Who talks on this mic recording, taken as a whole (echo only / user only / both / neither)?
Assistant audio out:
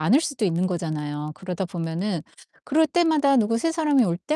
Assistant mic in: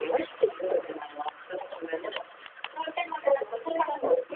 echo only